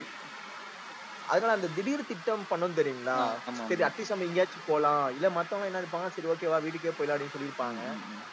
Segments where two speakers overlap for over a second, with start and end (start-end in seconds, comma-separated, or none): none